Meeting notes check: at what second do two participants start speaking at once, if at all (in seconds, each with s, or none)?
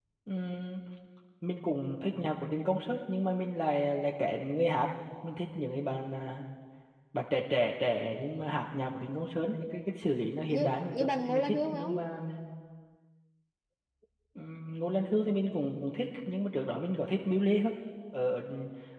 10.5 s